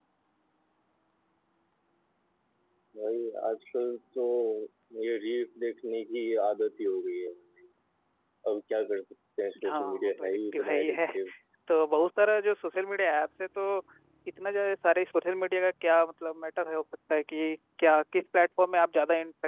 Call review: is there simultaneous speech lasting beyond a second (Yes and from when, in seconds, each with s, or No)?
Yes, from 9.6 s